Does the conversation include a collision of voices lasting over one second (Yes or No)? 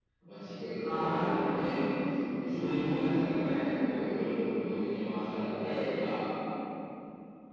Yes